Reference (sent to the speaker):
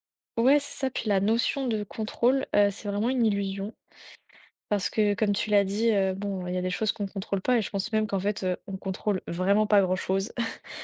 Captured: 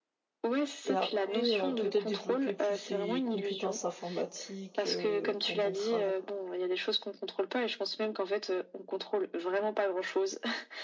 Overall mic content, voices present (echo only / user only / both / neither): both